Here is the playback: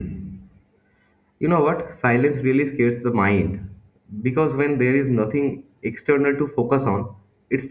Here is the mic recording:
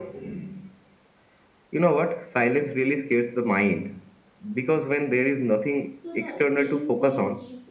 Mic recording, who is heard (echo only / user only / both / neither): both